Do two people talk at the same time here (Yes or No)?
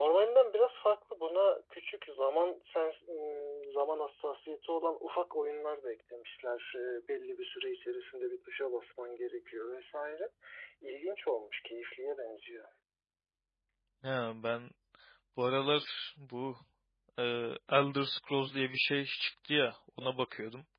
No